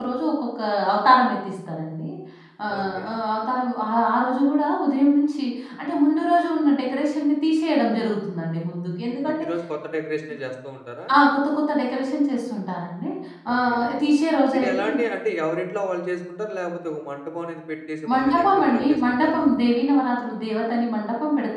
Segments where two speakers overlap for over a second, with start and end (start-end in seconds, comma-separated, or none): 18.1-19.5